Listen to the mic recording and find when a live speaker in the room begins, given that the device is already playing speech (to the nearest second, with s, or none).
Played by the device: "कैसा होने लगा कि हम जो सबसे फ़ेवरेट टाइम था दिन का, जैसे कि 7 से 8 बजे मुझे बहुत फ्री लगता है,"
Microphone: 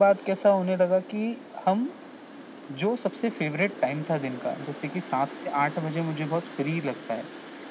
none